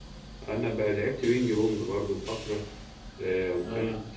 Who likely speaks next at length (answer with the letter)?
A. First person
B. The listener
A